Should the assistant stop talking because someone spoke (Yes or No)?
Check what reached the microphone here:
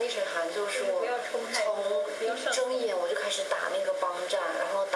No